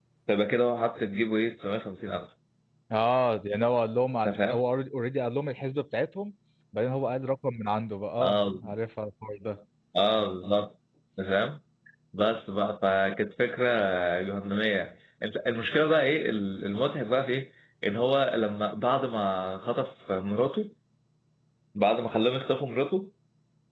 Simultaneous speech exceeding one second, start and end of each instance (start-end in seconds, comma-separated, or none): none